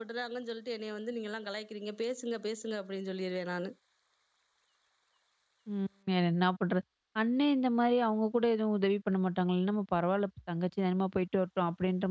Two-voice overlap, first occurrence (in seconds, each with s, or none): none